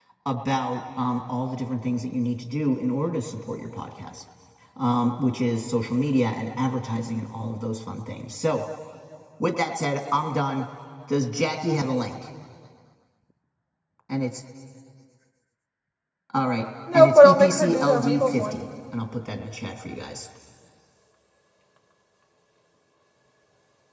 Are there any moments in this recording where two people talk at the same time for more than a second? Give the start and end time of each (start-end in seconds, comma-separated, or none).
16.9-18.6